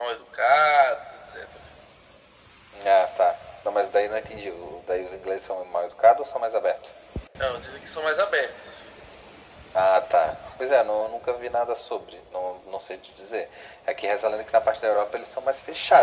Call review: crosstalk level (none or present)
none